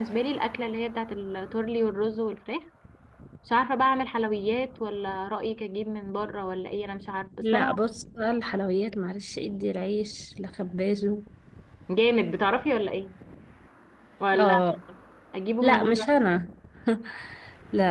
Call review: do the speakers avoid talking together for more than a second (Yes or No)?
Yes